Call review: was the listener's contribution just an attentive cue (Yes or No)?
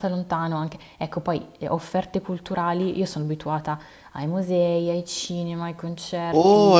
No